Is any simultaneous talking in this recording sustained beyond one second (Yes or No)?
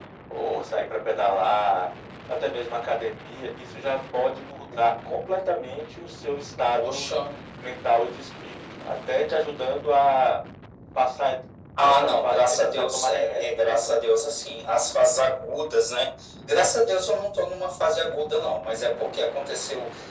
Yes